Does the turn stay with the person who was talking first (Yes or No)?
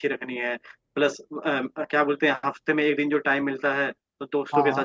Yes